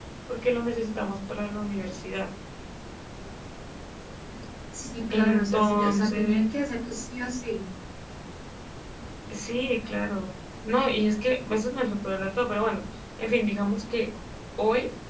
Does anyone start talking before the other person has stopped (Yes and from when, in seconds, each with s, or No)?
Yes, from 5.1 s